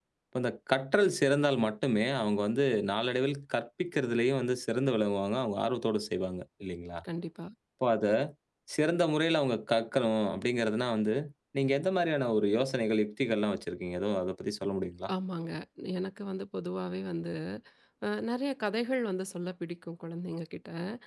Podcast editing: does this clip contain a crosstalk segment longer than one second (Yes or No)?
No